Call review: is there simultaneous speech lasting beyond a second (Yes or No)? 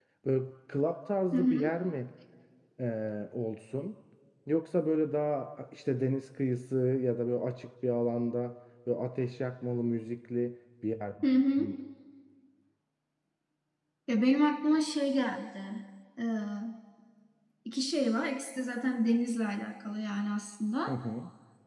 No